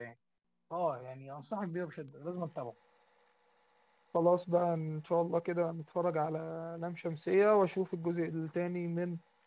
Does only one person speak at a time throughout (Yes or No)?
Yes